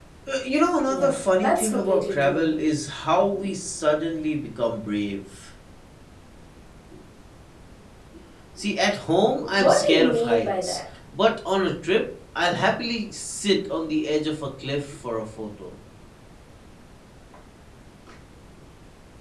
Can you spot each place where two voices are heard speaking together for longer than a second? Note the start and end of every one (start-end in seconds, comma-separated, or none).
0.9-2.5, 9.6-10.8